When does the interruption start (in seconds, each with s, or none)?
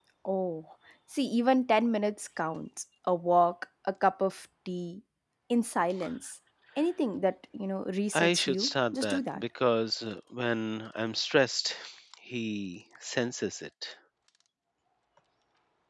8.1 s